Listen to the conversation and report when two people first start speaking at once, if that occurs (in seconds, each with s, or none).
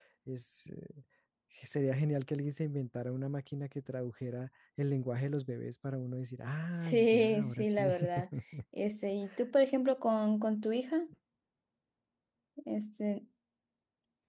6.7 s